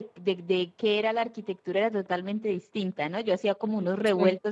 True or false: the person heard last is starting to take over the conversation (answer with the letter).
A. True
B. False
B